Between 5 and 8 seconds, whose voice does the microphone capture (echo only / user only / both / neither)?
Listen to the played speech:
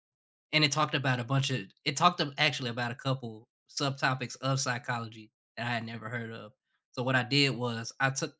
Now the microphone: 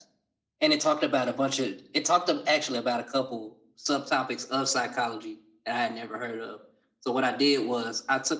echo only